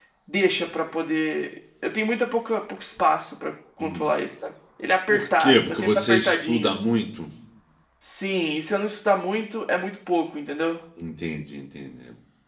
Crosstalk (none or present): present